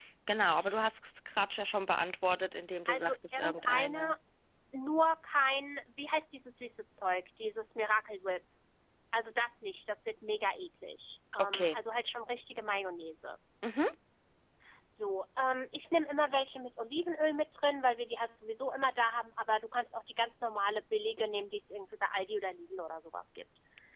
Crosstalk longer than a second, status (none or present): present